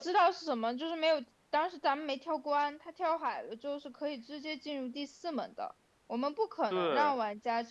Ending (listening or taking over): listening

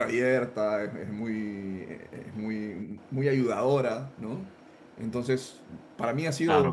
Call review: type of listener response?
listening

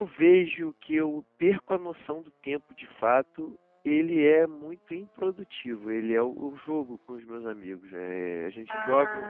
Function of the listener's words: listening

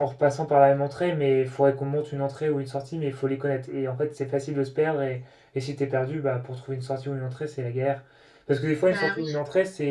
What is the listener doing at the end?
listening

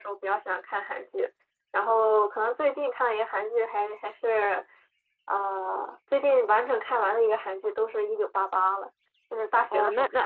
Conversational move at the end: taking over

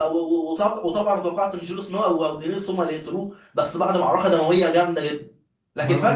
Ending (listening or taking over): taking over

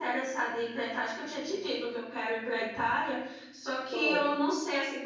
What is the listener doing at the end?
listening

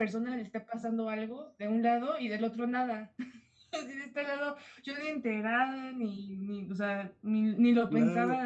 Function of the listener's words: taking over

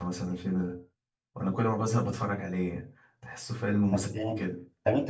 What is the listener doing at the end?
taking over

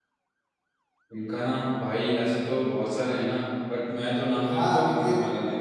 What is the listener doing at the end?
taking over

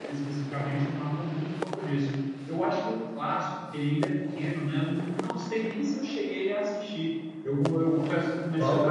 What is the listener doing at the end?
listening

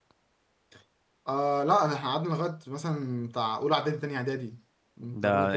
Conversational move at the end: taking over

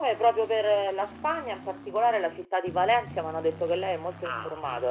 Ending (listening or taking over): taking over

